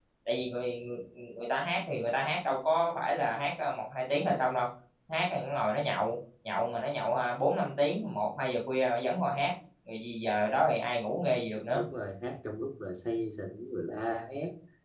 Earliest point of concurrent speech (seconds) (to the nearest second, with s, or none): none